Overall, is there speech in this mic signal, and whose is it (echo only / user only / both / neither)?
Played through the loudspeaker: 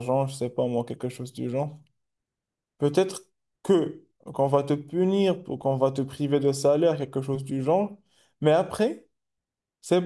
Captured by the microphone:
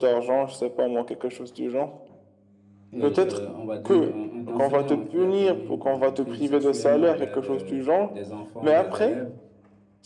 both